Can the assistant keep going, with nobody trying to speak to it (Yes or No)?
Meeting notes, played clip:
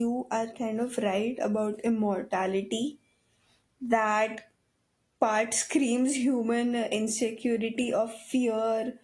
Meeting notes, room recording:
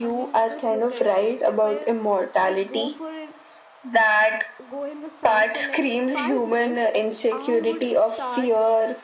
No